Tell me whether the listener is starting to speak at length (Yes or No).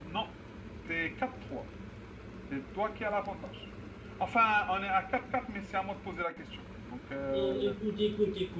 Yes